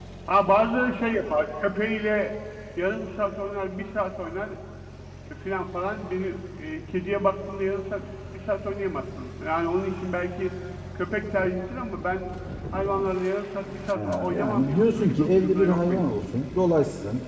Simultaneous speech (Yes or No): Yes